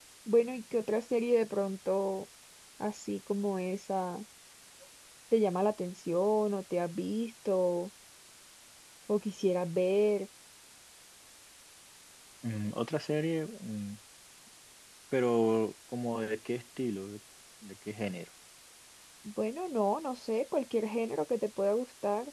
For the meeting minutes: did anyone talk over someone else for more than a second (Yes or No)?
No